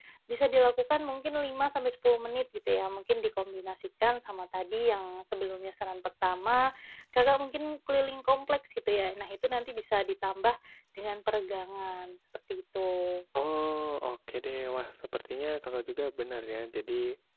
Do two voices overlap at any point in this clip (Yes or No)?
No